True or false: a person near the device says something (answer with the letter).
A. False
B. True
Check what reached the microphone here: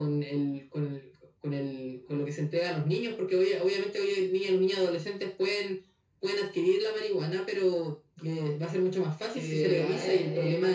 B